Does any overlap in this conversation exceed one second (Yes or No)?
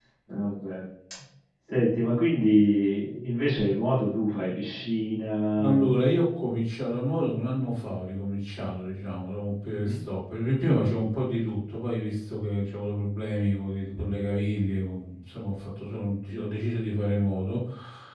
No